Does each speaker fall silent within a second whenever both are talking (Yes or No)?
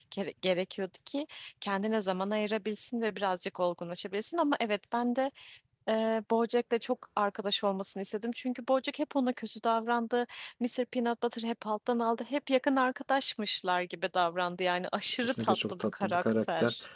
No